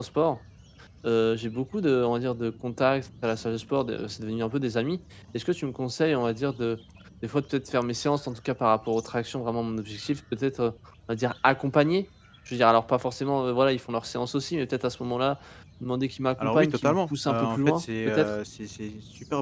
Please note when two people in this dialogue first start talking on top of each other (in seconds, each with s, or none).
16.4 s